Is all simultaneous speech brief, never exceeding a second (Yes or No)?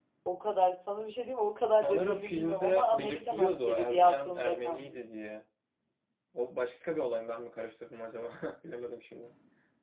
No